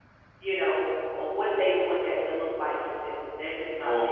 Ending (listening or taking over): taking over